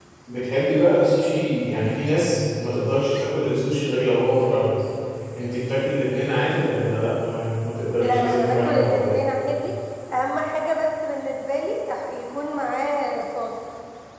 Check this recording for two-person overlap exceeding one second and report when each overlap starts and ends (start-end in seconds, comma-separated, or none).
8.0-9.2